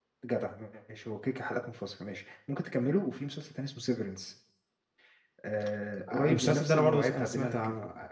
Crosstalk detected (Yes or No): Yes